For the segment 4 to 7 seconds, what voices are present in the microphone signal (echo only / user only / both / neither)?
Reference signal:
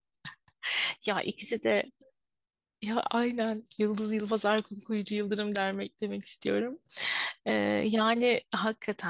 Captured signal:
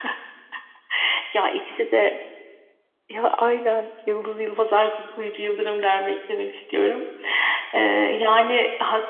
echo only